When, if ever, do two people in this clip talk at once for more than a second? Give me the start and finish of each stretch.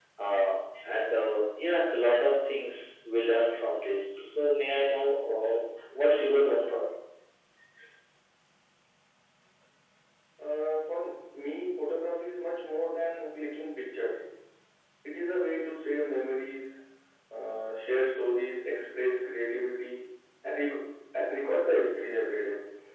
none

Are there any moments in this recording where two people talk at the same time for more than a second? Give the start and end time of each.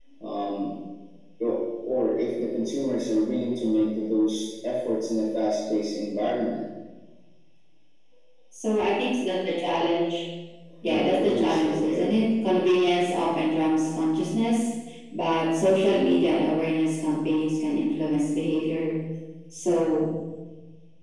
10.9-12.1

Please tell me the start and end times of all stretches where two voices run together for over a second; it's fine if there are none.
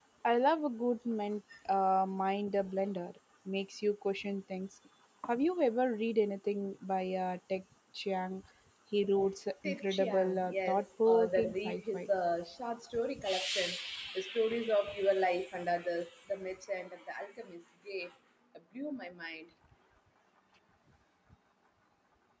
9.6-12.1

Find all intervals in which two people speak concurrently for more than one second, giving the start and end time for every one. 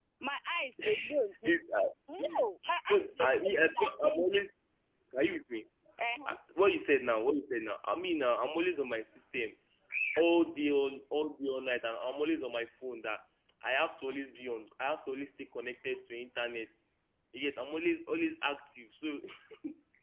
2.9-4.4

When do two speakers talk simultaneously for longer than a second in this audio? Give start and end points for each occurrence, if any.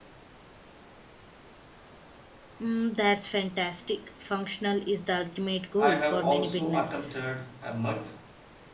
5.8-7.2

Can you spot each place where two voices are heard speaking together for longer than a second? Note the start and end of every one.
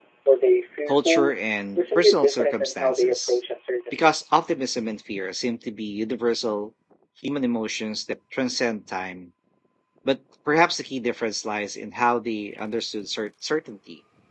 1.8-3.4

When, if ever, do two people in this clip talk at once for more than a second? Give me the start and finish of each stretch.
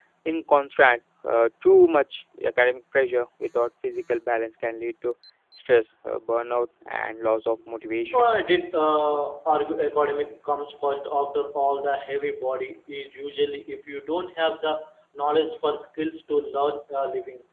none

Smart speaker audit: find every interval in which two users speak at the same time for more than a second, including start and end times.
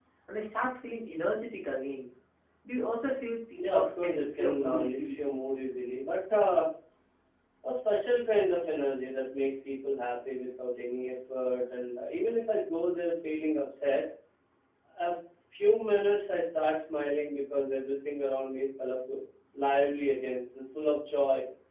3.6-5.2

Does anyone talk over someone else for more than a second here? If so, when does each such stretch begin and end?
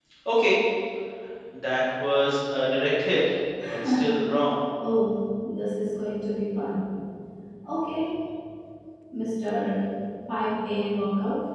none

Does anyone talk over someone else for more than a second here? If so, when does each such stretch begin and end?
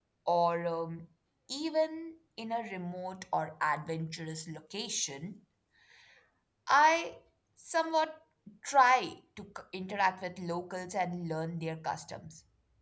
none

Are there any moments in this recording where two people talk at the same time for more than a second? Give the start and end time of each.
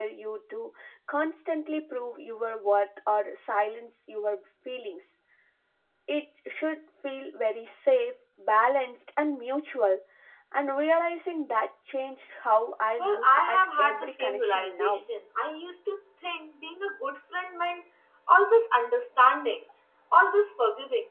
13.0-15.0

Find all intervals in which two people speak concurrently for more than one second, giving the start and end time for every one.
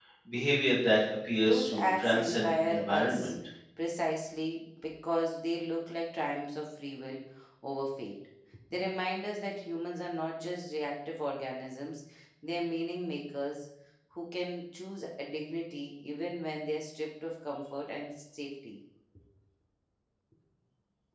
1.4-3.3

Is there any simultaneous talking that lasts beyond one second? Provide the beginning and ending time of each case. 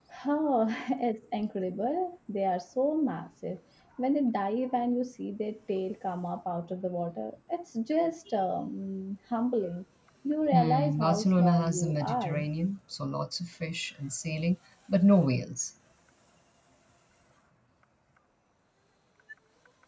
10.5-12.5

